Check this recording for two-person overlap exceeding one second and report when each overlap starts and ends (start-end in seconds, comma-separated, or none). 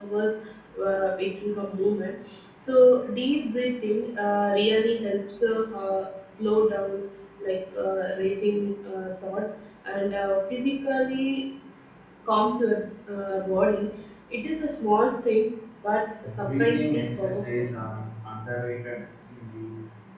16.4-17.6